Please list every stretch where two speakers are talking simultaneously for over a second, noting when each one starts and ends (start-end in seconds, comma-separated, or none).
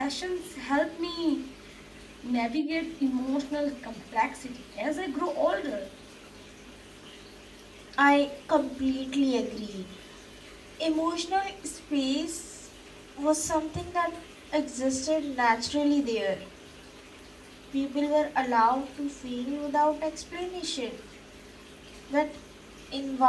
none